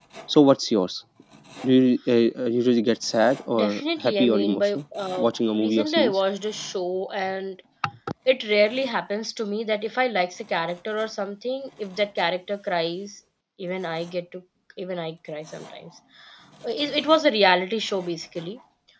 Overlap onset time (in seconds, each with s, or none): 3.5 s